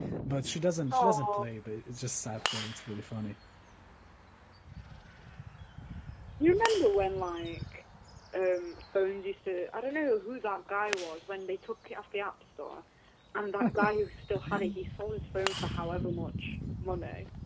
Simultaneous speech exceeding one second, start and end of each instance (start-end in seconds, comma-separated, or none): none